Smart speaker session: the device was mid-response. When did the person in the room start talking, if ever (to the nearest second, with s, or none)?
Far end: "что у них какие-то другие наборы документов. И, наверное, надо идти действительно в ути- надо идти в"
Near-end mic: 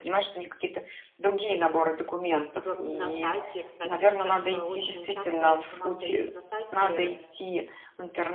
3 s